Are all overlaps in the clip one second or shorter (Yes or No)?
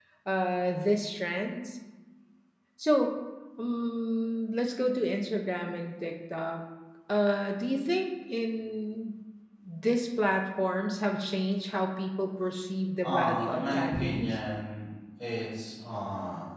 No